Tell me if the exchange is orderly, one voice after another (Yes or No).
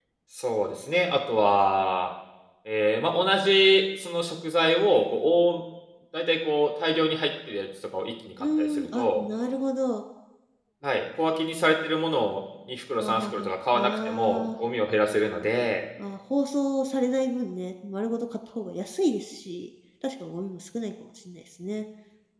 No